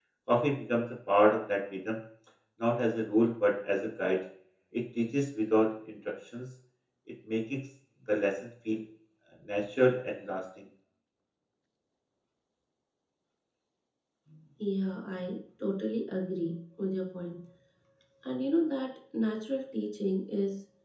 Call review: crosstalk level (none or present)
none